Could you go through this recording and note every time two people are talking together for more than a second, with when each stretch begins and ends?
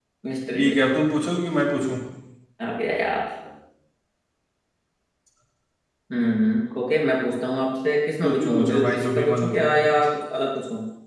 8.2-10.0

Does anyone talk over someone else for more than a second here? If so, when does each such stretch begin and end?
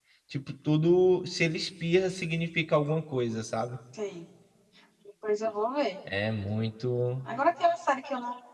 none

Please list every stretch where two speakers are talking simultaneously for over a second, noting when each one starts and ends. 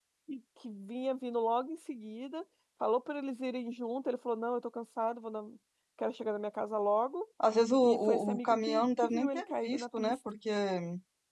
7.8-10.2

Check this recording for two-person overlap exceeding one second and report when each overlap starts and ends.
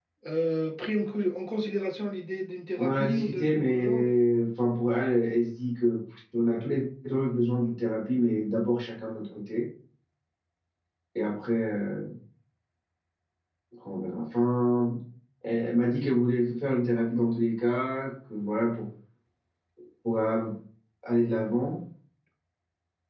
2.8-4.2

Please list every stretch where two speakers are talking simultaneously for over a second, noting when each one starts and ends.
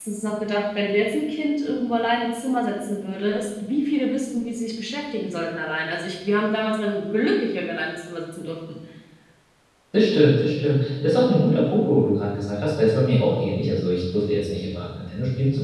none

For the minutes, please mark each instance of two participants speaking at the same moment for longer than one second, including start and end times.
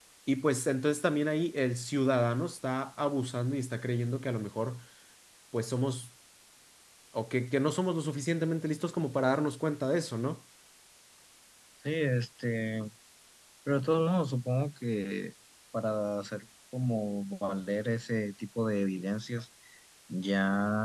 none

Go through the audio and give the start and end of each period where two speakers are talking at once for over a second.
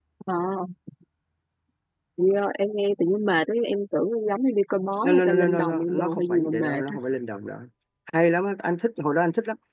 5.0-7.0

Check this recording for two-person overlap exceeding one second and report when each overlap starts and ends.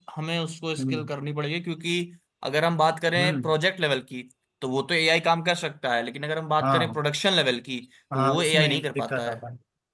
8.1-9.4

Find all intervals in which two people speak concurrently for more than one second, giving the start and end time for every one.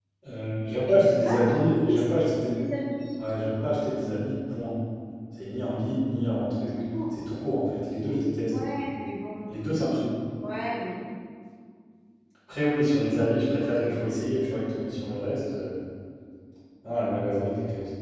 0.9-2.5

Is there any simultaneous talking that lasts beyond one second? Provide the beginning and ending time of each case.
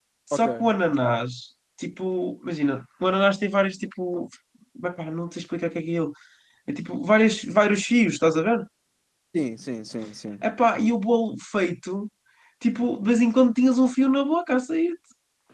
none

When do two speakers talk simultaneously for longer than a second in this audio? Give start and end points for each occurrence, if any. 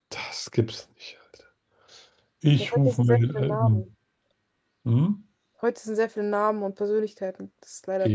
2.6-3.8

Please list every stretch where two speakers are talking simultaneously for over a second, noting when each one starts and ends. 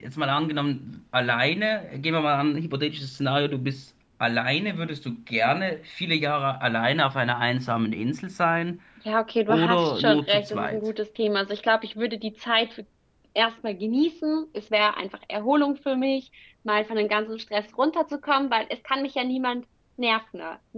9.5-10.8

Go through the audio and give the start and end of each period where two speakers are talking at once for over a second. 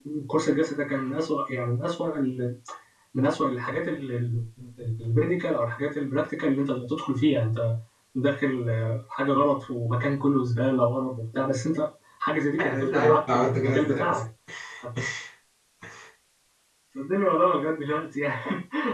12.6-14.2

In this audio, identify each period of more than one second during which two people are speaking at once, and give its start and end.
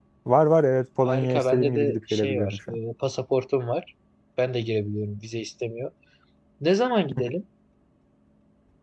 1.0-2.8

